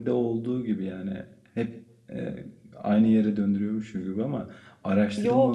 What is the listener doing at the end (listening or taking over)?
listening